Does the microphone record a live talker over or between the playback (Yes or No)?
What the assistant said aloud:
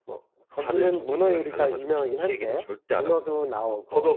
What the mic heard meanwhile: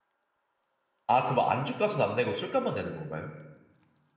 Yes